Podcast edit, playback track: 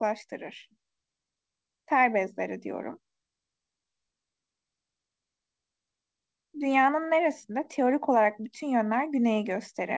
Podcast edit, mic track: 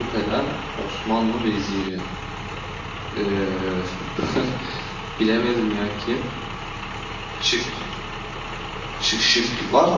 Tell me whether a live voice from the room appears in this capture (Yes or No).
Yes